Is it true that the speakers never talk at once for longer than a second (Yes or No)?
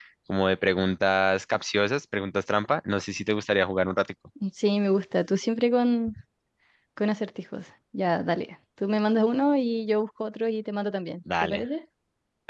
Yes